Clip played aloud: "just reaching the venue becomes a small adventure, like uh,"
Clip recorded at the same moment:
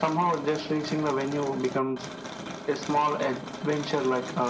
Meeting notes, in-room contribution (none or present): none